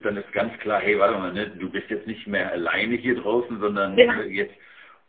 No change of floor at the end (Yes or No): Yes